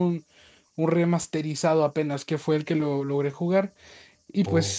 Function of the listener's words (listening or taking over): listening